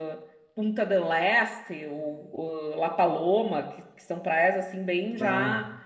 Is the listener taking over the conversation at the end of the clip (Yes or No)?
No